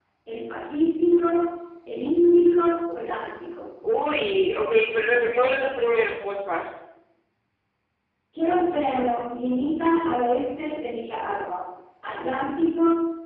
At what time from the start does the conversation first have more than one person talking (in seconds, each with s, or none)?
none